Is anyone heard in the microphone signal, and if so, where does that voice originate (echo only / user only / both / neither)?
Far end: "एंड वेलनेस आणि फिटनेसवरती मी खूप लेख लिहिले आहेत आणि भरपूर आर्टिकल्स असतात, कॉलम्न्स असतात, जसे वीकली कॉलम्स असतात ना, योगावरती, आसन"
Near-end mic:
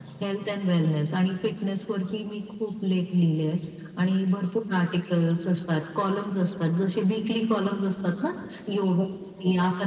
echo only